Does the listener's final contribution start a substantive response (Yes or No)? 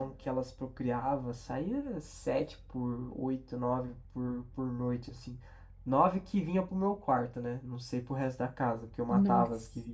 No